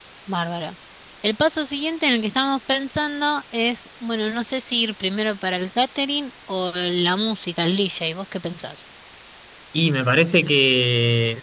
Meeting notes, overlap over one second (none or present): none